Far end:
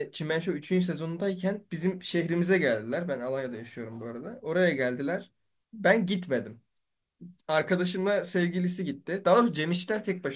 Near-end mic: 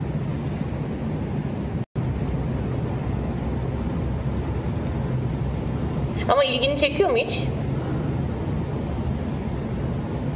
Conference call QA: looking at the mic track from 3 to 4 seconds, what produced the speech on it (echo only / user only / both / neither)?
neither